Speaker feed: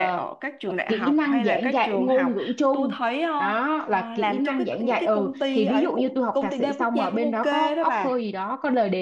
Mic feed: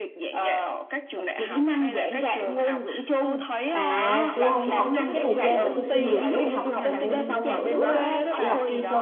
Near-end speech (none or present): present